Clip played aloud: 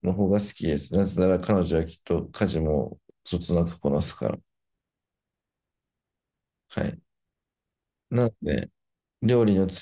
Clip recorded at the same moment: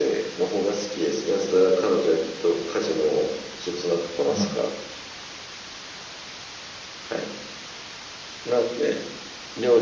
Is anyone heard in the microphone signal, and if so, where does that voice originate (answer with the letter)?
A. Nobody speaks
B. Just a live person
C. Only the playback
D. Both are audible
D